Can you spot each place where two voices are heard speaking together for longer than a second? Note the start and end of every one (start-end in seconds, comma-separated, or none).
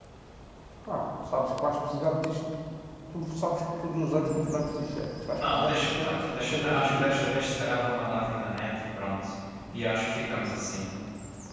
5.5-7.1